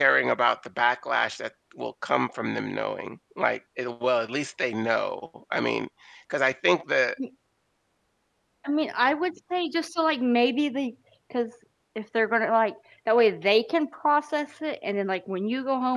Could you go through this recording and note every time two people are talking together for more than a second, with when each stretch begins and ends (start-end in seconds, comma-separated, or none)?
none